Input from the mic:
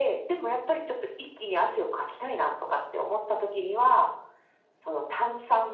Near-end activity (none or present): none